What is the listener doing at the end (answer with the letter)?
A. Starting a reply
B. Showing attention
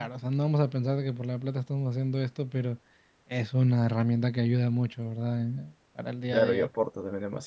A